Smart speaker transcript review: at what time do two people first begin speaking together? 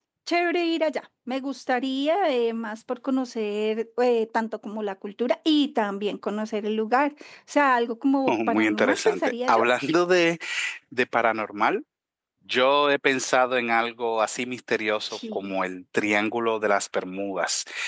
8 s

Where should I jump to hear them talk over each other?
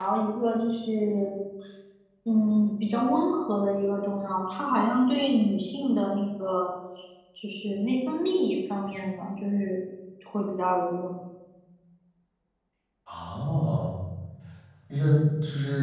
none

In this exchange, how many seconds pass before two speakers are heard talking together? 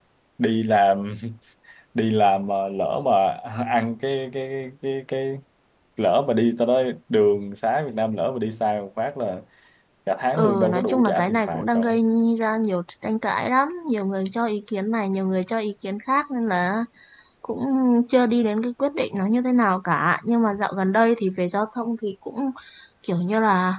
10 s

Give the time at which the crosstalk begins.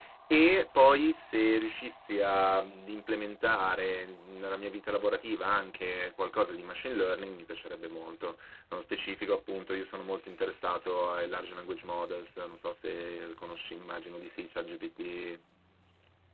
none

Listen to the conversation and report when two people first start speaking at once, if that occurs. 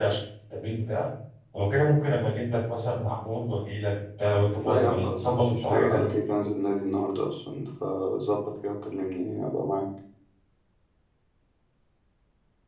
5 s

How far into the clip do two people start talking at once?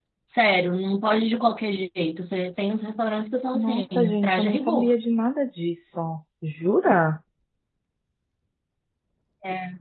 4 s

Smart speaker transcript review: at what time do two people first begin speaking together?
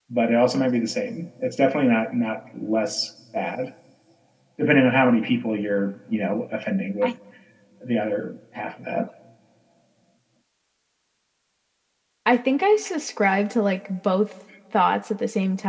none

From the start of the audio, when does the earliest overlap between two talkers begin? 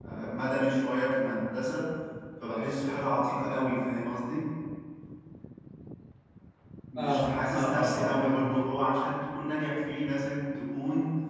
7 s

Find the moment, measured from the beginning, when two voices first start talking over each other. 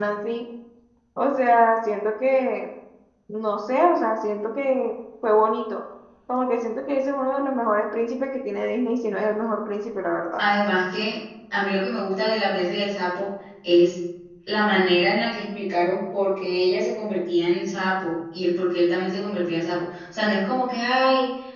none

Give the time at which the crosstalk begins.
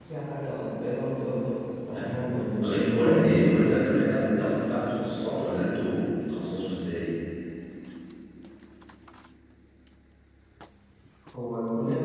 2 s

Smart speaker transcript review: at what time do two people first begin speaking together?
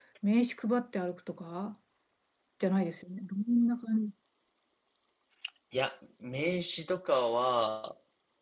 none

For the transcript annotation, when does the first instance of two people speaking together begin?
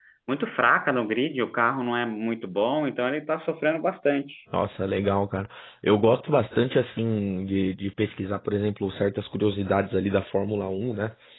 none

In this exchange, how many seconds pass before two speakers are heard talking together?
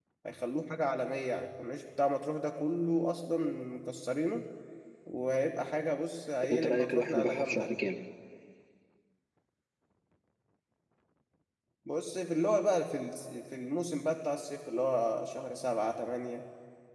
6 s

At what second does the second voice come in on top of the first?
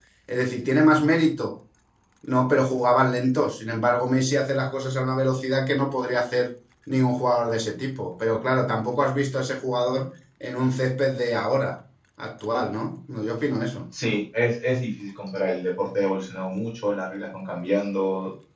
none

